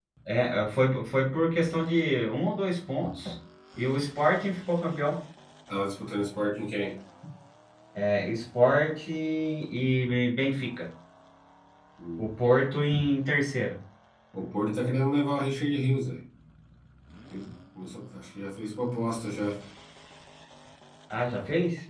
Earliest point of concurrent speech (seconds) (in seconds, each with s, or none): none